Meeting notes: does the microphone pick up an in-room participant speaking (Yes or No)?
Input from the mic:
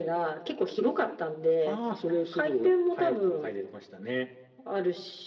No